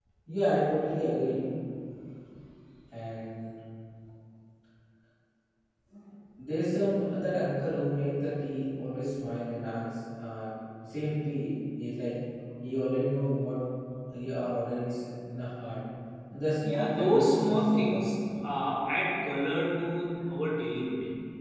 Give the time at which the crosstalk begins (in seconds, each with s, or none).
16.6 s